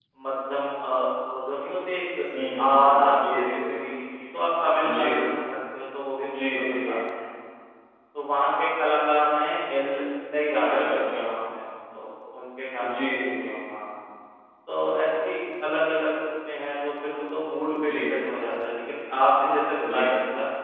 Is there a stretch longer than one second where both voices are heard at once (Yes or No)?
Yes